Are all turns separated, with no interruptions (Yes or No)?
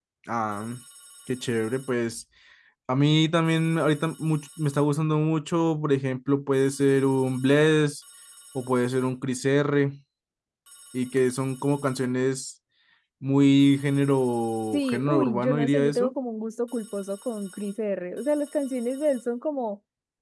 No